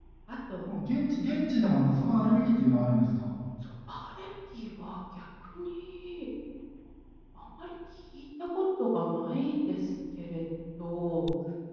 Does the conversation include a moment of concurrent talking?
No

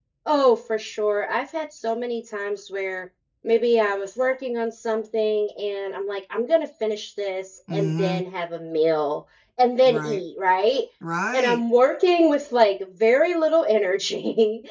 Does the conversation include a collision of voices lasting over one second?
No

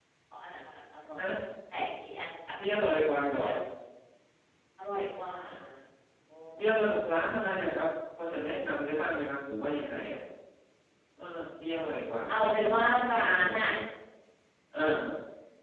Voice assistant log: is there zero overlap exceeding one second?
No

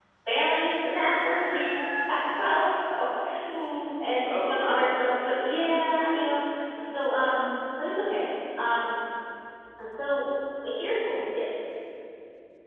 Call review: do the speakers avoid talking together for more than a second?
No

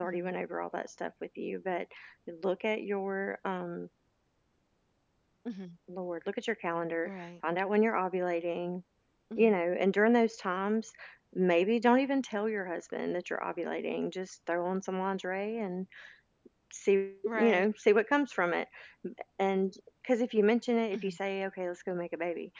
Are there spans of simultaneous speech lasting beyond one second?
No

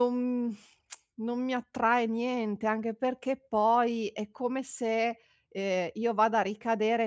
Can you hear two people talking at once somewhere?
No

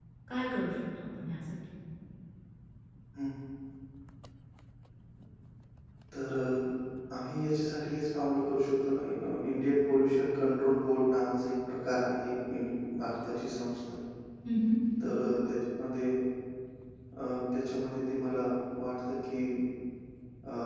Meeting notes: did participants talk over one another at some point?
No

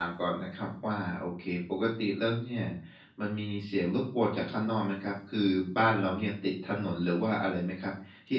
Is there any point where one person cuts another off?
No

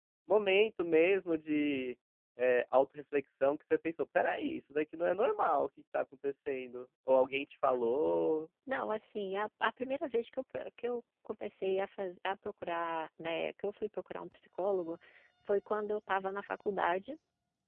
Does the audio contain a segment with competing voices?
No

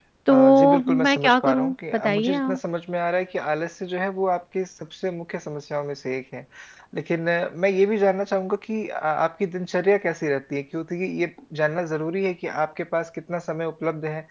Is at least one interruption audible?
Yes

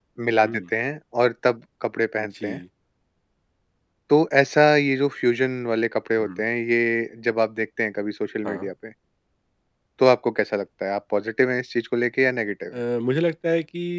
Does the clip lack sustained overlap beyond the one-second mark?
Yes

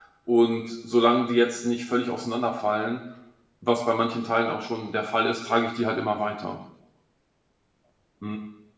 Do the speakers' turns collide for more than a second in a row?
No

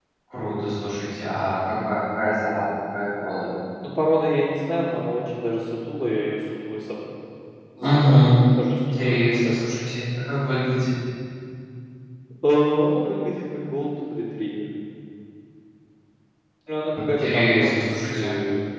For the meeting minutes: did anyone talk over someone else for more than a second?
Yes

